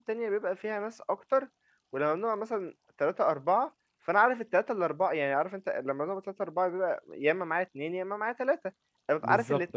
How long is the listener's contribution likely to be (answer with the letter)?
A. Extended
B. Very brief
B